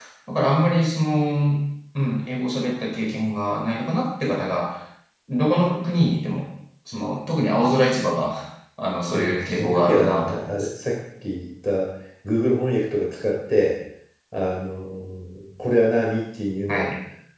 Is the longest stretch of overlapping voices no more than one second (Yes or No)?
No